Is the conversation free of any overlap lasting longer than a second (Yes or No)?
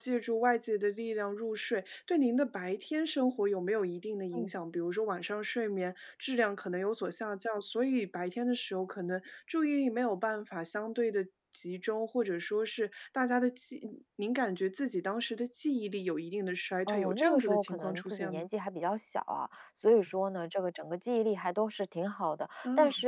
No